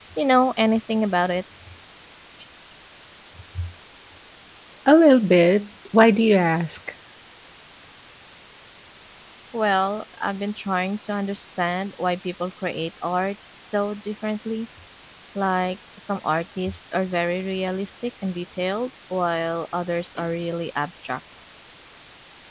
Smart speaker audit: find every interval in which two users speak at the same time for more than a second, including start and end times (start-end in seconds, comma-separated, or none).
none